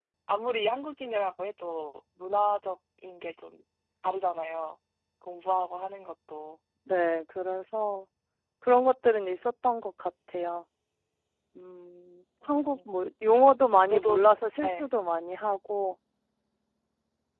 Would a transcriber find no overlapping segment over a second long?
Yes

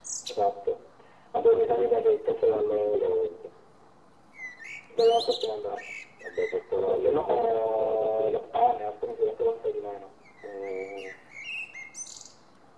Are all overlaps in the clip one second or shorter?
No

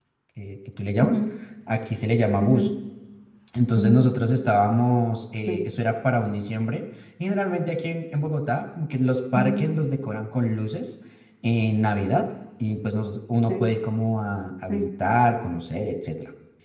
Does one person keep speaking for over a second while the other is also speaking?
No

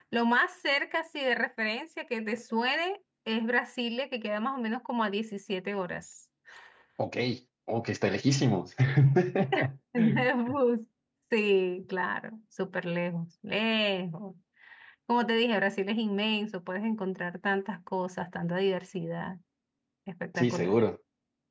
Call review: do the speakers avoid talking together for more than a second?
Yes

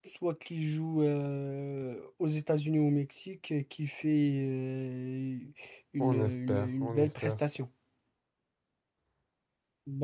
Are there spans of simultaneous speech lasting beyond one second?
Yes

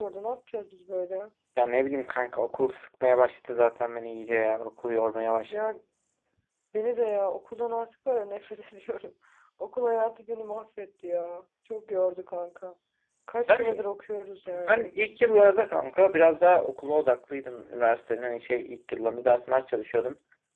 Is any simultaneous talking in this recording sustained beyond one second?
No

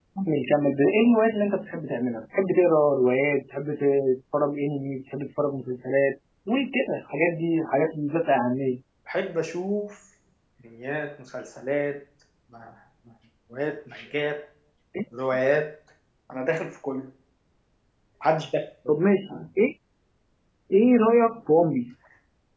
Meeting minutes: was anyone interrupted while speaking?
No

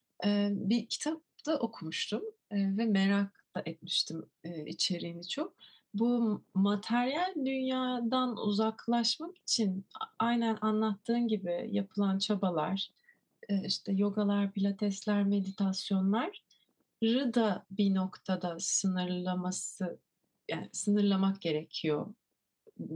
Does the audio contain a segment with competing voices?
No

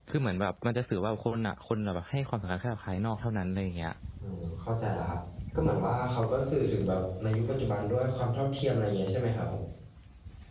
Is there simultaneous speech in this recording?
No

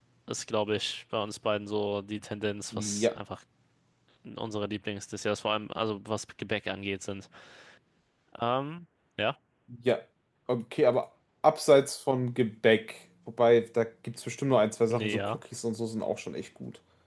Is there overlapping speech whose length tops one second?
No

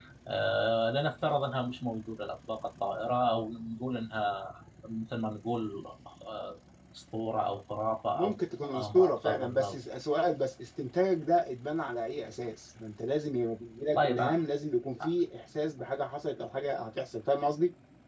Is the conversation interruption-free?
No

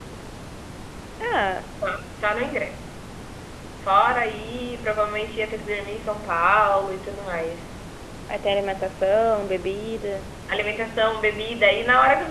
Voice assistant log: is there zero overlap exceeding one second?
Yes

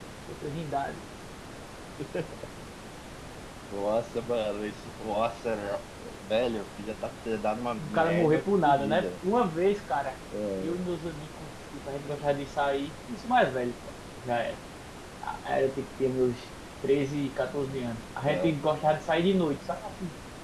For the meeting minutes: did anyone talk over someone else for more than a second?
Yes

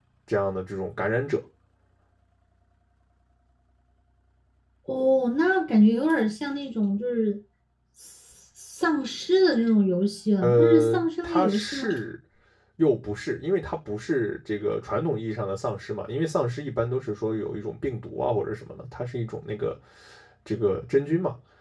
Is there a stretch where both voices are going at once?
Yes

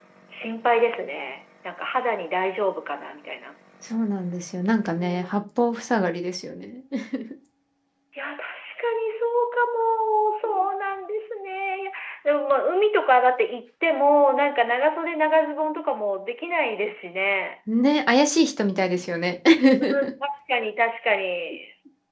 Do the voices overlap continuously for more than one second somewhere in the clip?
No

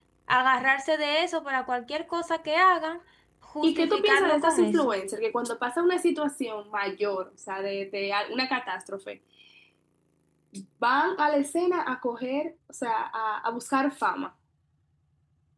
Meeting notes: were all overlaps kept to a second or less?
No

